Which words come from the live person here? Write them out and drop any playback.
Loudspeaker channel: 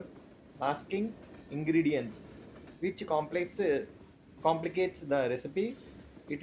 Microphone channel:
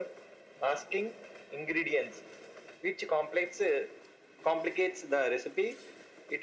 none

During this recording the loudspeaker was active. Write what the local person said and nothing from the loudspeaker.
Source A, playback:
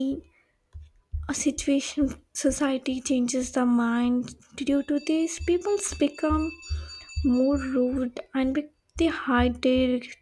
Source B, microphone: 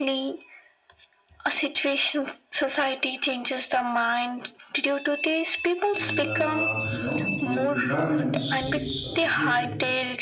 And uh, you know, your environment shapes uh, behavior.

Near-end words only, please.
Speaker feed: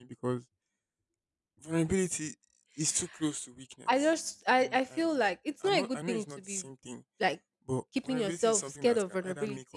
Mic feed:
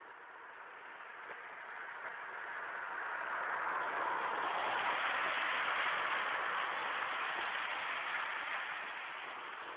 none

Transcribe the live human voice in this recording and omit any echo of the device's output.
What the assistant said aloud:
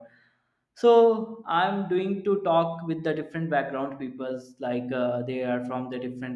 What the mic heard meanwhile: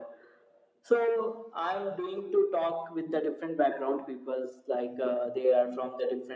none

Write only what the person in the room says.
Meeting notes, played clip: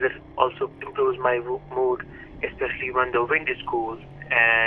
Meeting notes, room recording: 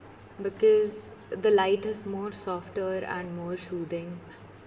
because the light is more softer and more soothing.

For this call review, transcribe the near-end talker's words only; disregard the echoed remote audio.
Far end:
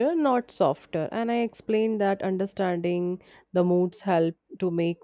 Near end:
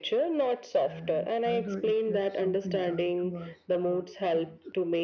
and either it gets something done to us or don't.

